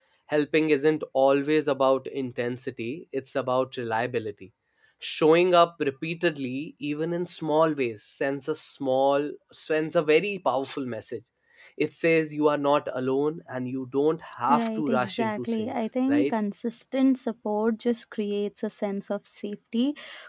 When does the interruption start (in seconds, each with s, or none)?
14.5 s